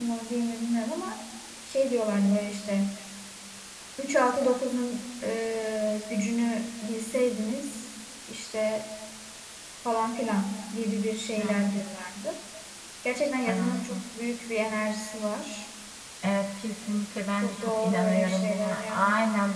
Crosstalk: present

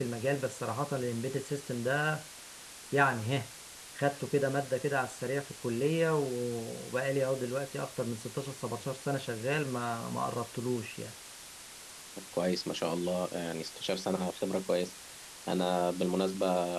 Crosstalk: none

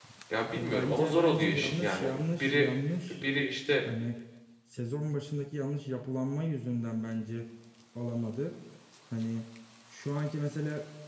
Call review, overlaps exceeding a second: present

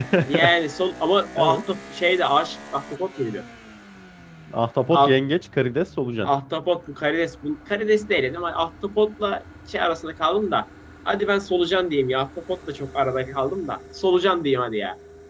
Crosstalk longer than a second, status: none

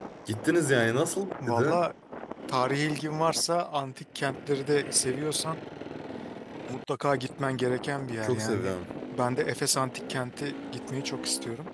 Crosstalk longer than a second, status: none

